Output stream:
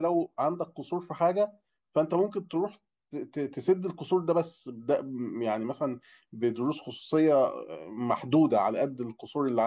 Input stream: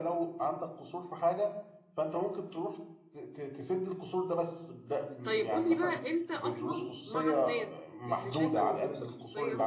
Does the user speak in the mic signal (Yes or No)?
Yes